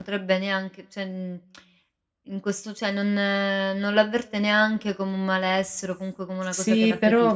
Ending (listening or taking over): taking over